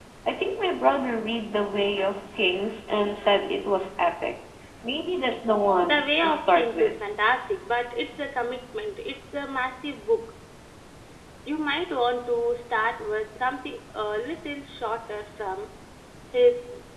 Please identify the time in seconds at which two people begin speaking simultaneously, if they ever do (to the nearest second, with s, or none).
6 s